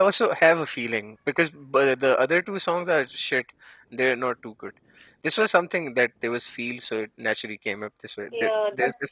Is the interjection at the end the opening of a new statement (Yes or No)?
Yes